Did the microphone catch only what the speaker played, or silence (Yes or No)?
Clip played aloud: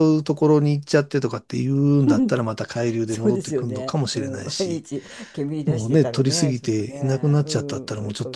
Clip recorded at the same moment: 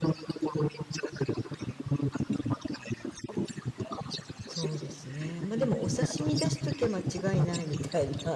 No